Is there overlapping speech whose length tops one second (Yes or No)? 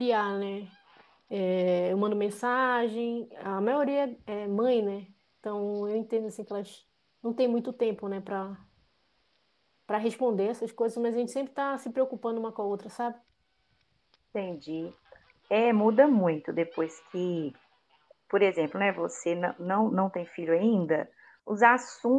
No